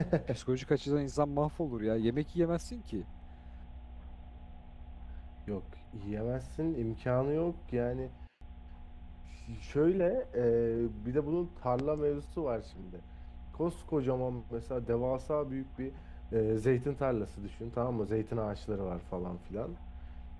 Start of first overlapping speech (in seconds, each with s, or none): none